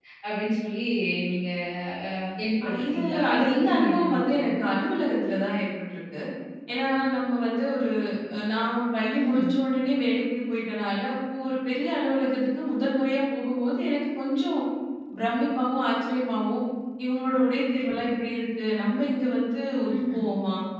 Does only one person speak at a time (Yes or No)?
No